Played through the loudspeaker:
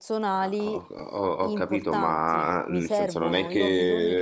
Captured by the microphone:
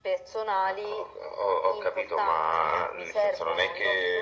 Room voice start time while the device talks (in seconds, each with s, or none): none